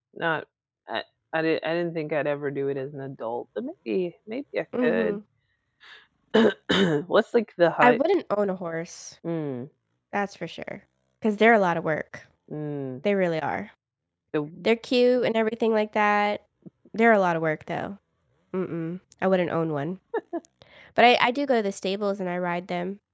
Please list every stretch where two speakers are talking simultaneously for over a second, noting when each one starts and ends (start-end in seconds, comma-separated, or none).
none